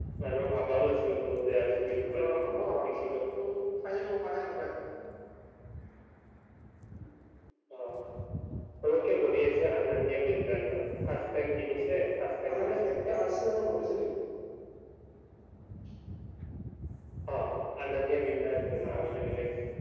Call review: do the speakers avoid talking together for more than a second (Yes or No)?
No